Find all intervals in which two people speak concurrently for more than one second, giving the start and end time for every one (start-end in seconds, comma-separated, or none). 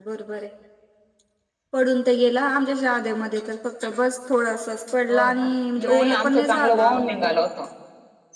5.8-7.3